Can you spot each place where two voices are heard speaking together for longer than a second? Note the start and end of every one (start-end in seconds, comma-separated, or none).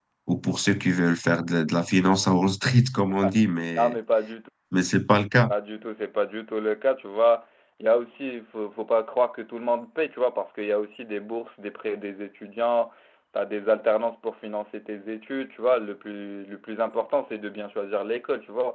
none